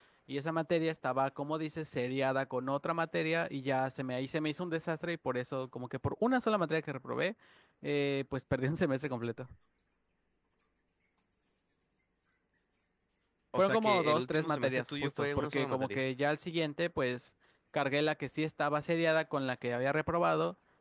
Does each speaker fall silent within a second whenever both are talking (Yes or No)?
No